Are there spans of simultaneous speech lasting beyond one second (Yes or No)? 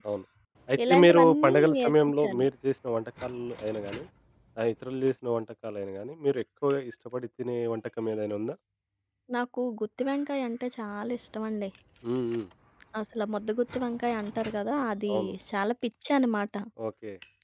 Yes